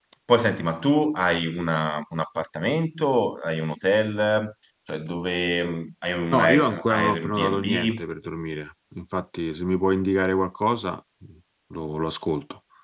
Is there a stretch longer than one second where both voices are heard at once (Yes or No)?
Yes